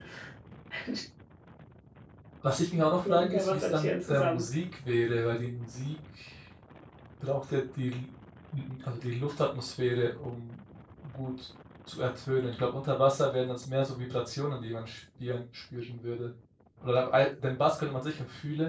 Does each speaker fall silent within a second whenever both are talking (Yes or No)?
No